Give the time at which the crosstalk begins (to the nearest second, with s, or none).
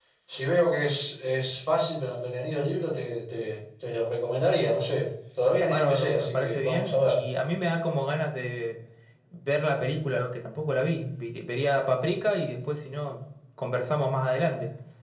6 s